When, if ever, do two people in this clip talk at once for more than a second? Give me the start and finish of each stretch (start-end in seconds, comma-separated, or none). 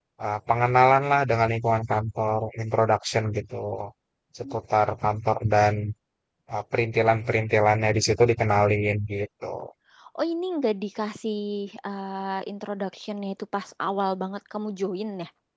none